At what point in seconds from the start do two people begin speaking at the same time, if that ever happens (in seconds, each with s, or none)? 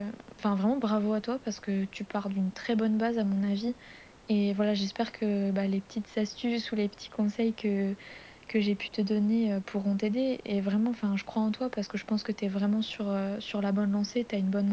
none